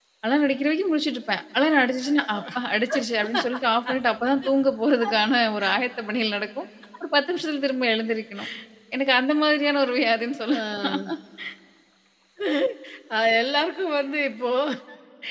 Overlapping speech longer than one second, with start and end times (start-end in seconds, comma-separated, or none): none